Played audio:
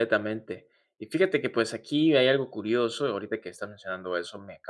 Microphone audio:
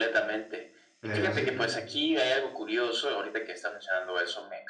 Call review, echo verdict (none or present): present